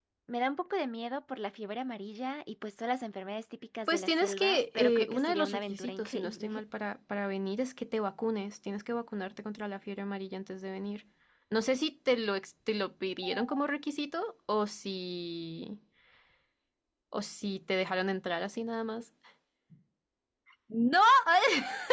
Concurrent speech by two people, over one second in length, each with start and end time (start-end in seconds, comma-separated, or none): 3.9-6.6